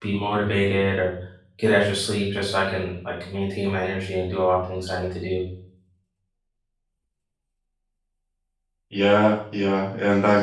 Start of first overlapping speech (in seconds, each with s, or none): none